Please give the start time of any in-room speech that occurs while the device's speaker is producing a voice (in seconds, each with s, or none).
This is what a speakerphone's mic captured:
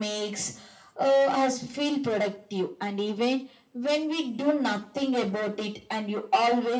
none